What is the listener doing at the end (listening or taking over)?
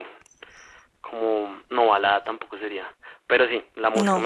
listening